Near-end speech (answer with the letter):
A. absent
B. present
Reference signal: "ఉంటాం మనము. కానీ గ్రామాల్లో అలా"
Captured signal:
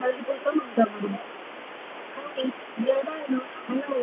A